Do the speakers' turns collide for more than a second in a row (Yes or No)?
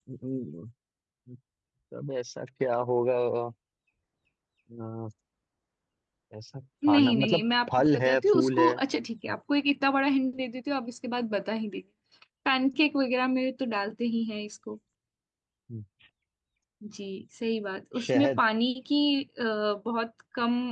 Yes